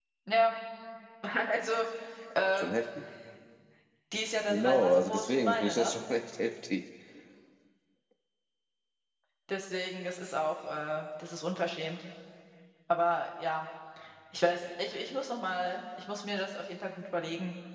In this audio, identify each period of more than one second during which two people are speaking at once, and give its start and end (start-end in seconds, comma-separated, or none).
4.5-5.9